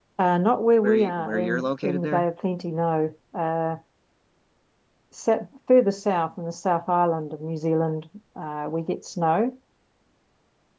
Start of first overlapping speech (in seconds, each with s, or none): 0.8 s